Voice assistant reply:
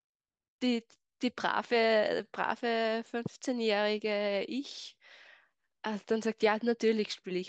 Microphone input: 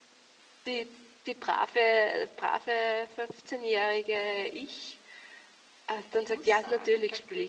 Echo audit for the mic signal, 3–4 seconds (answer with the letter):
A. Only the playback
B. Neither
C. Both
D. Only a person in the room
A